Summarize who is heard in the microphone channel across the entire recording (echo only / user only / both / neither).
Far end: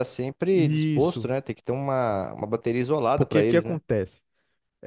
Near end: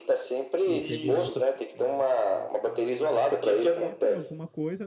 both